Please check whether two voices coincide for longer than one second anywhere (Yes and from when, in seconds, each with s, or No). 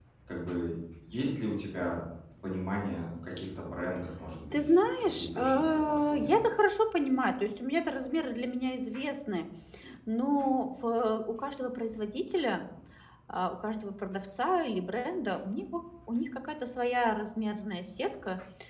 Yes, from 4.5 s